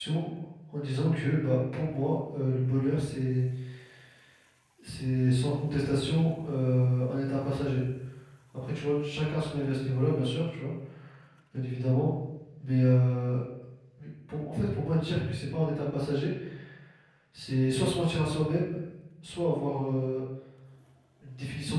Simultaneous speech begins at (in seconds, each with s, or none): none